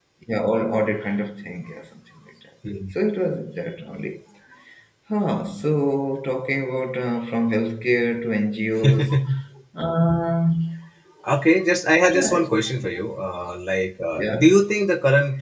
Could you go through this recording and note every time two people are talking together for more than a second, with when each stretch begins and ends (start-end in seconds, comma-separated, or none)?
none